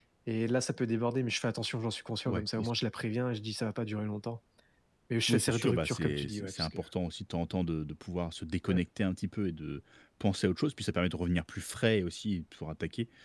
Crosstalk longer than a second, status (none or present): present